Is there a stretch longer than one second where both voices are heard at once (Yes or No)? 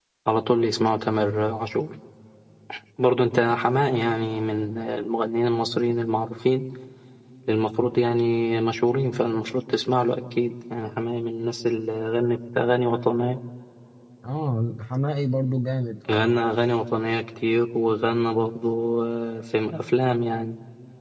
No